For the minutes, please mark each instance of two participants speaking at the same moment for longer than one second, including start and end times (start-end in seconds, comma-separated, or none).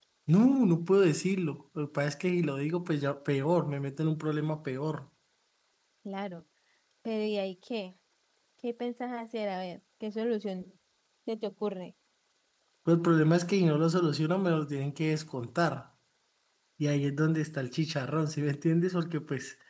none